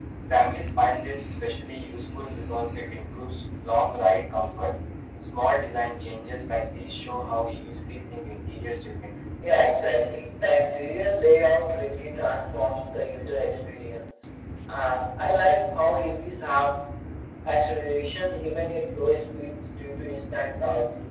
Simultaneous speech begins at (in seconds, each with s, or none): none